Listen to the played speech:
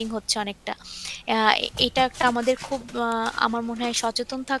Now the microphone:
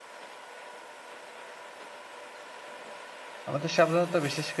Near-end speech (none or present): present